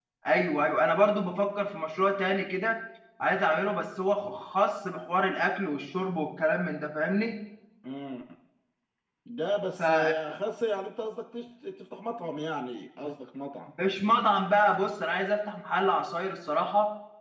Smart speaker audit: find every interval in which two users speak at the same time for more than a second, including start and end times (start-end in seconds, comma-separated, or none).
none